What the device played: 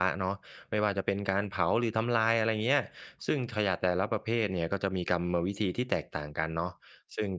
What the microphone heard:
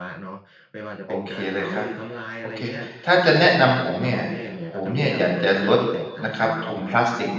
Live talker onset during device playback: 1.1 s

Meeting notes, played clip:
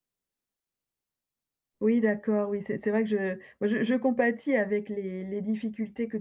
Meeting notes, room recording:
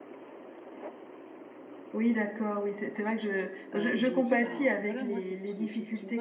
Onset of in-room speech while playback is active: 3.7 s

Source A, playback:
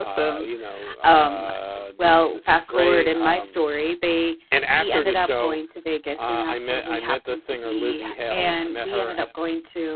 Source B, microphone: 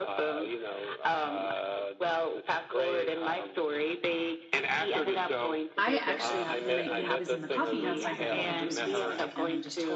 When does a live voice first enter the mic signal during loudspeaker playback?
5.7 s

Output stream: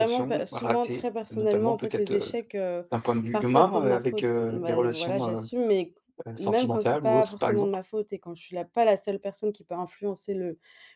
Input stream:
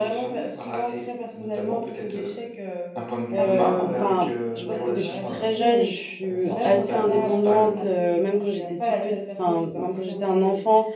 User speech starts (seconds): 3.3 s

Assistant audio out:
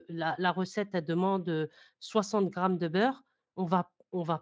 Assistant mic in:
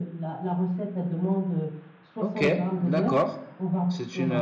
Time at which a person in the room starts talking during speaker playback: 2.2 s

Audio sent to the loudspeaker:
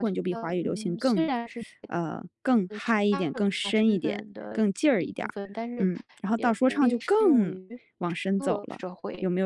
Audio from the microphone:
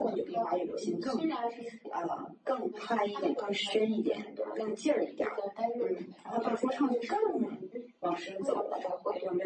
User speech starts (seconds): none

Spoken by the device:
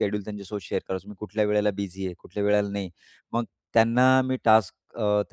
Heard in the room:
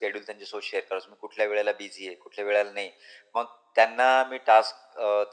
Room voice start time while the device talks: none

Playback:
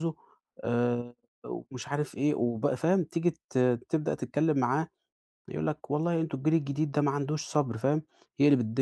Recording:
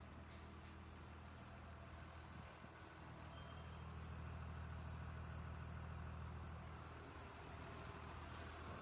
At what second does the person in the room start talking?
none

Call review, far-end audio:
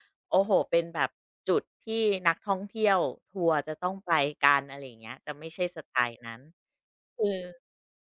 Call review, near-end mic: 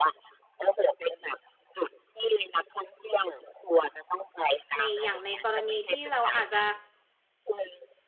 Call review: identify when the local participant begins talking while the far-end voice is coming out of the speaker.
4.8 s

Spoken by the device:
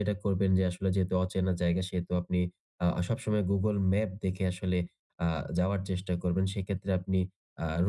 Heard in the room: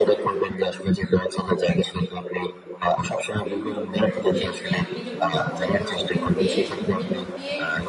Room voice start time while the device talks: 3.4 s

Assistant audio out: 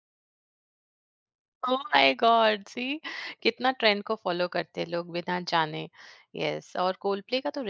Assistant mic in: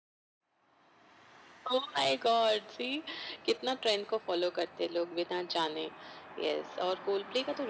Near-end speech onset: none

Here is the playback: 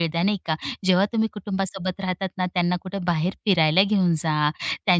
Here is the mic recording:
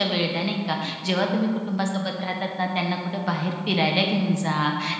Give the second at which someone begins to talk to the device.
none

